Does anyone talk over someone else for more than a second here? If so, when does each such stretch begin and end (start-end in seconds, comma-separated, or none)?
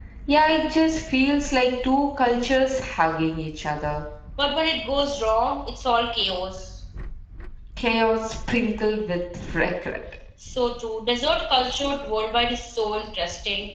none